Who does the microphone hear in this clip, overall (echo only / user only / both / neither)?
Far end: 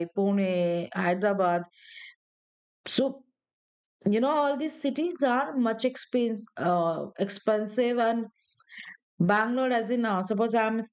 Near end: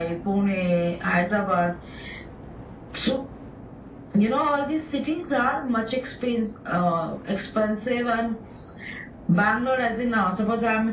echo only